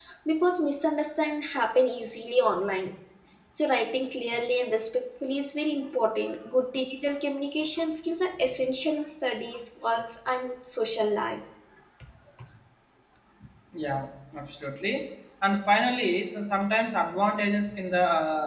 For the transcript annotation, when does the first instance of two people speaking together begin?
none

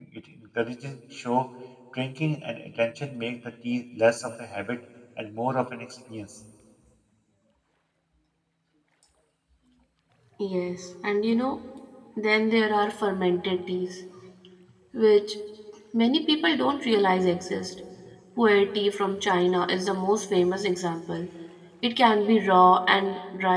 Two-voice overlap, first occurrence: none

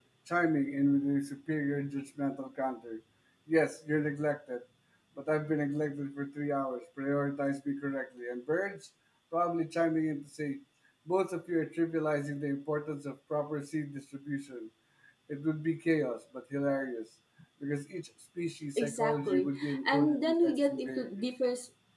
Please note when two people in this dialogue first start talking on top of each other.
18.8 s

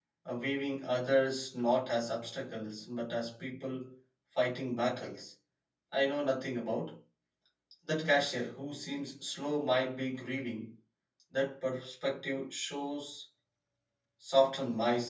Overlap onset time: none

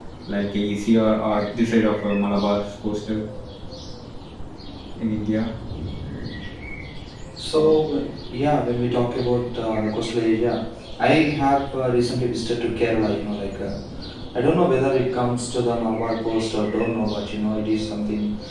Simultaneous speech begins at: none

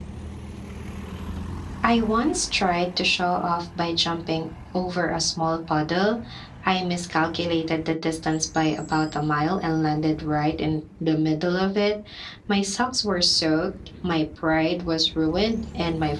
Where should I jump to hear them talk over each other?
none

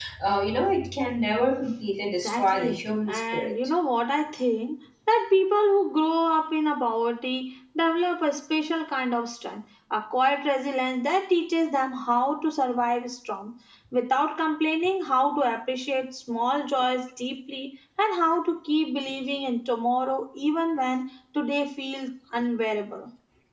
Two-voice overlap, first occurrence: 2.0 s

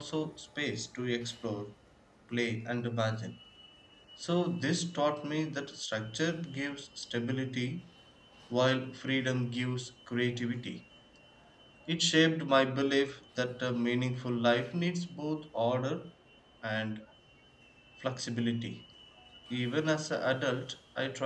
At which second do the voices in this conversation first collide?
none

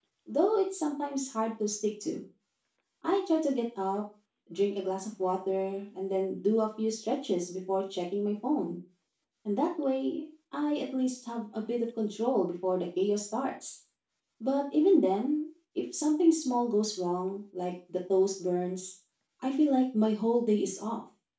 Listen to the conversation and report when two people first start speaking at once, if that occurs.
none

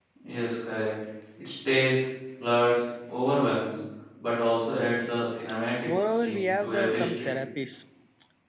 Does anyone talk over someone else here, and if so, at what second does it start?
5.9 s

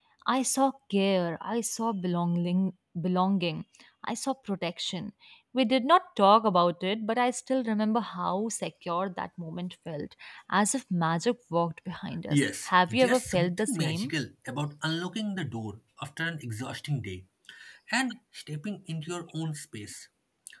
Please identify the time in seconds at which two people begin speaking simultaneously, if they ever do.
12.3 s

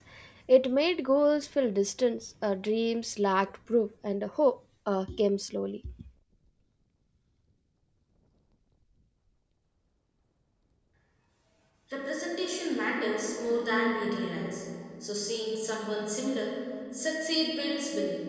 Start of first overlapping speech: none

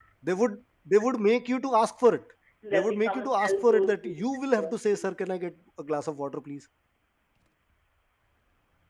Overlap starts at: 2.7 s

